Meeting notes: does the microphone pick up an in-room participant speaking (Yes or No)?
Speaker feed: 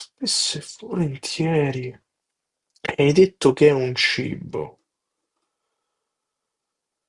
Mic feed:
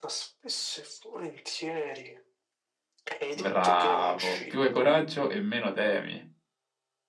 Yes